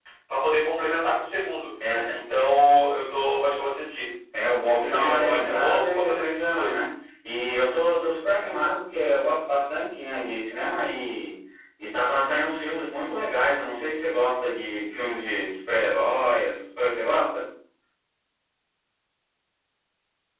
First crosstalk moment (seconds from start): 4.6 s

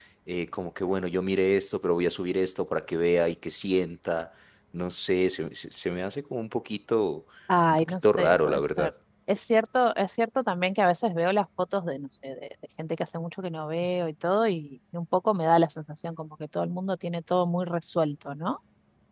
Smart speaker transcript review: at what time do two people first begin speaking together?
7.7 s

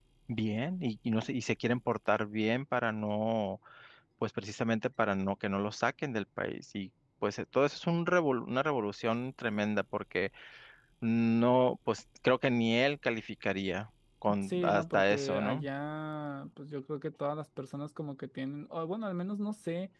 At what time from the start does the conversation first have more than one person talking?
14.4 s

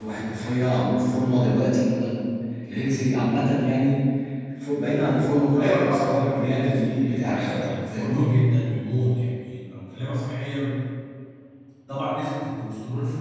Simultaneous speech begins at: 5.5 s

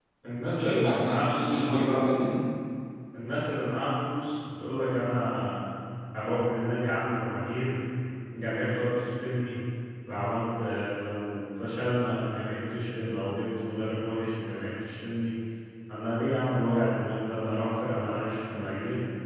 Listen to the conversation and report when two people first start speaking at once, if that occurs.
0.6 s

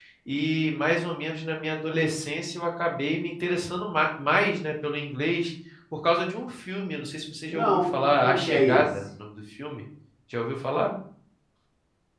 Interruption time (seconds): 7.5 s

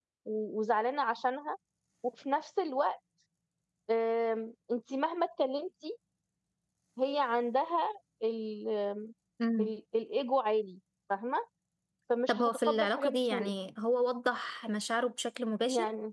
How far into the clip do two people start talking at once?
12.3 s

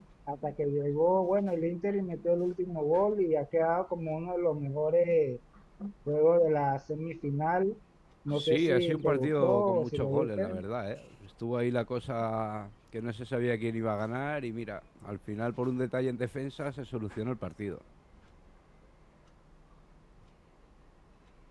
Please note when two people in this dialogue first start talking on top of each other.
8.3 s

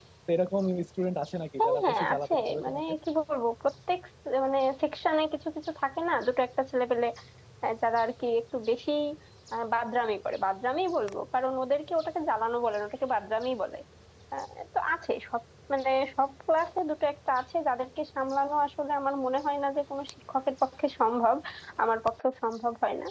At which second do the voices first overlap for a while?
1.6 s

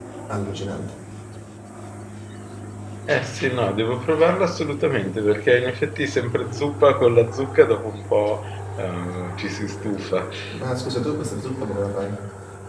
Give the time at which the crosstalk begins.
none

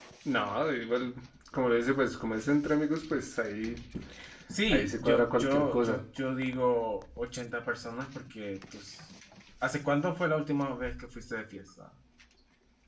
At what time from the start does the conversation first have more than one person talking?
4.7 s

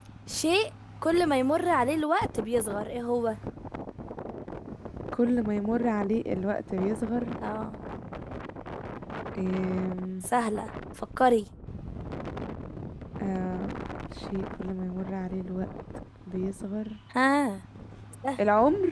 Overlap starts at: none

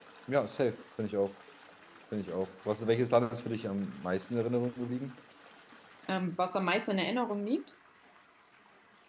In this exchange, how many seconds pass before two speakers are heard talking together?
none

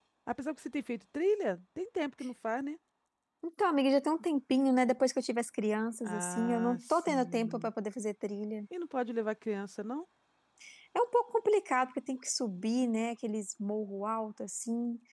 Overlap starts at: 6.0 s

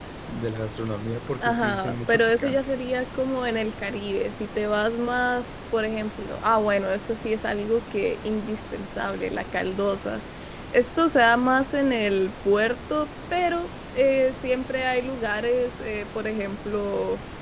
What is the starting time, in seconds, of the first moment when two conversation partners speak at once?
1.4 s

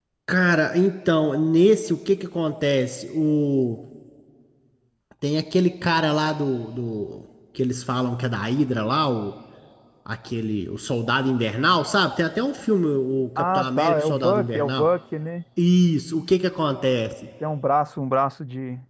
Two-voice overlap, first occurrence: 13.4 s

